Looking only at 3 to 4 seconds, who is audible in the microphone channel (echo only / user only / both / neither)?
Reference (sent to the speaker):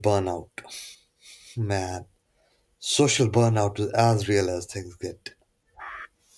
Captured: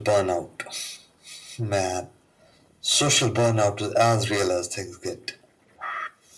echo only